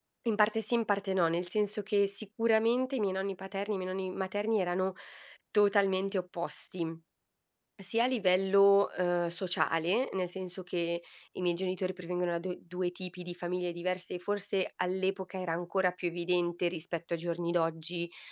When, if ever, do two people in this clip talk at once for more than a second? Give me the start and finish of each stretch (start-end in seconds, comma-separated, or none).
none